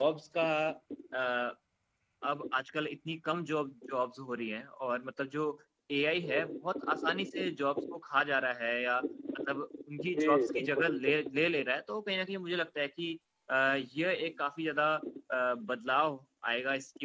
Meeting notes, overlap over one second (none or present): present